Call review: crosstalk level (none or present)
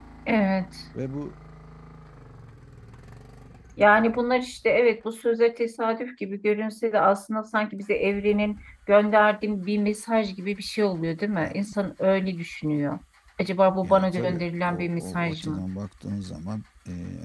present